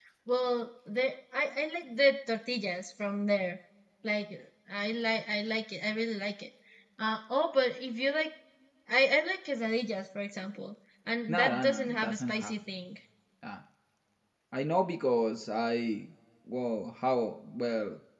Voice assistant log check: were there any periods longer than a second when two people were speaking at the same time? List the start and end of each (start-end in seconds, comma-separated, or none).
11.3-12.5